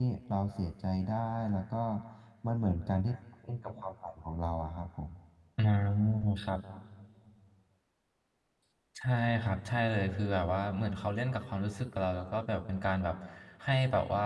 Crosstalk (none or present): none